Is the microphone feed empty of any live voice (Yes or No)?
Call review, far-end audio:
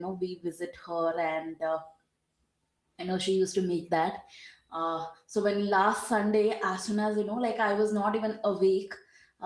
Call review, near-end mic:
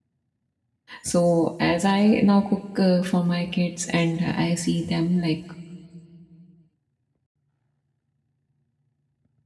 No